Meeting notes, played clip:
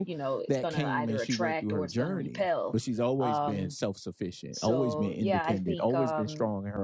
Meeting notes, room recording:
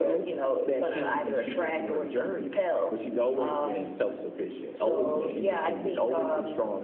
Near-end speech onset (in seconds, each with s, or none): none